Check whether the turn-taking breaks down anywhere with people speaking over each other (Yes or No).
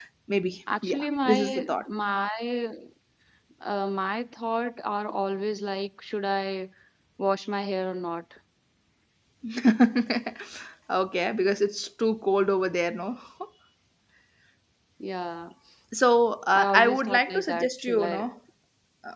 Yes